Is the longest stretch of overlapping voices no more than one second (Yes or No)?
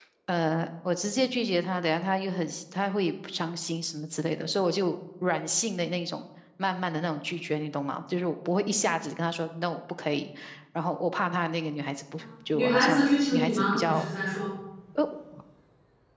No